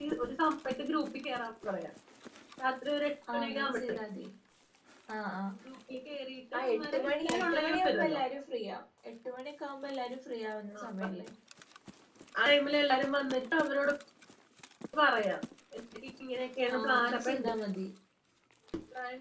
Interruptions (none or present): present